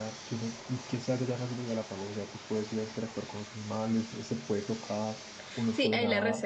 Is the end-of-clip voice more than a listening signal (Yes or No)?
Yes